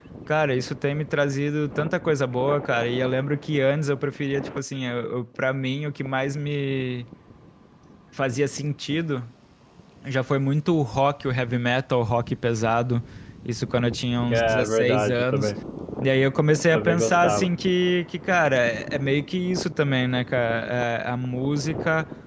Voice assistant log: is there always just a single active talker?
No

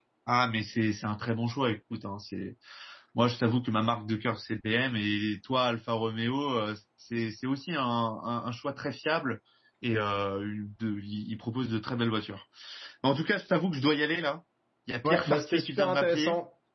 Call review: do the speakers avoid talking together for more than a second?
No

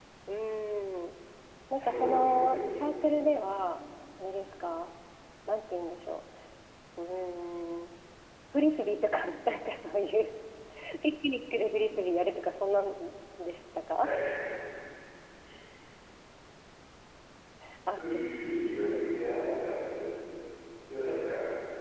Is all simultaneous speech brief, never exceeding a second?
No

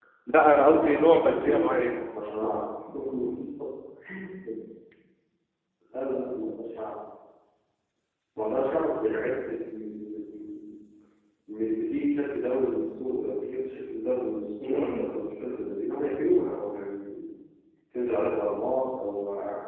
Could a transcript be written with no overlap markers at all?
No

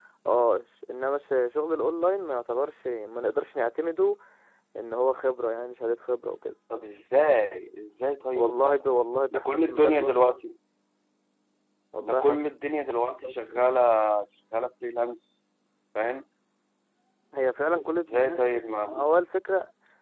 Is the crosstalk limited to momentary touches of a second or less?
No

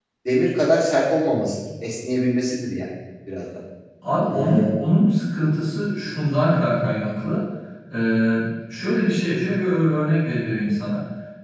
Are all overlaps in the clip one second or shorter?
Yes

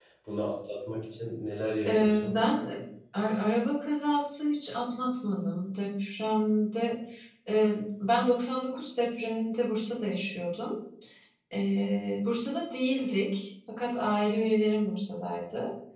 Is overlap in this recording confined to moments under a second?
Yes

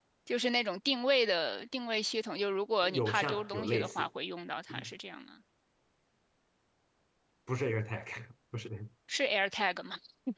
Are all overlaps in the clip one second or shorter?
No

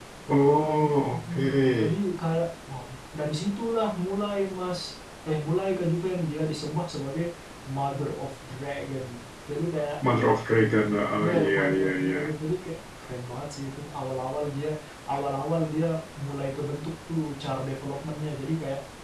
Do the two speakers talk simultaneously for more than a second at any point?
Yes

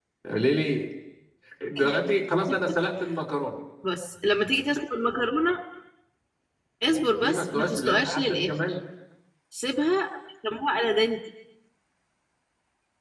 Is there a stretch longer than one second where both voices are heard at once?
Yes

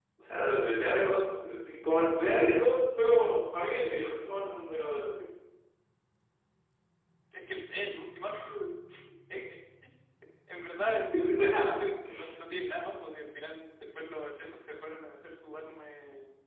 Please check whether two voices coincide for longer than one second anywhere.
No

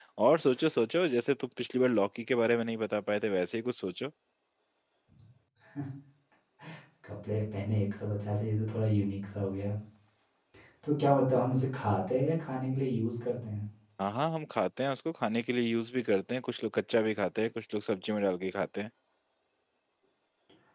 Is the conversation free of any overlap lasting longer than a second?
Yes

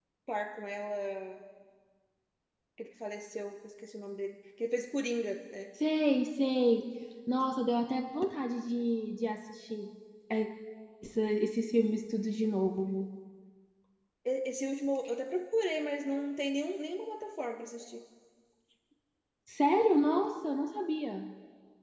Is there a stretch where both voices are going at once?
No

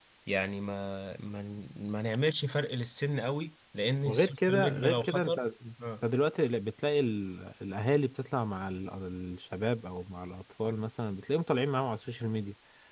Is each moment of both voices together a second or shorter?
No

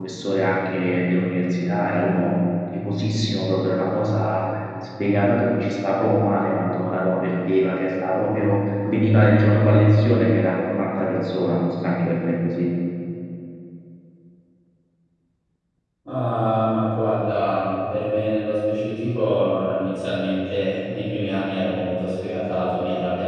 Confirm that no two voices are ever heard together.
Yes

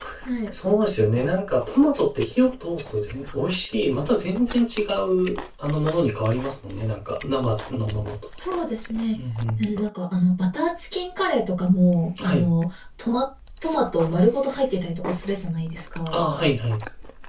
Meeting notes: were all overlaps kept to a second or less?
Yes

